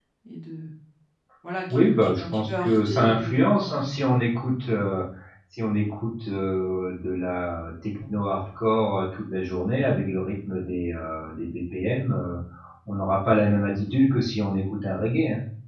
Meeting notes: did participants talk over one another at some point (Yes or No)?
Yes